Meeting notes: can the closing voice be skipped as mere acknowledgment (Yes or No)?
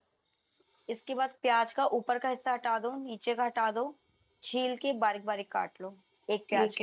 No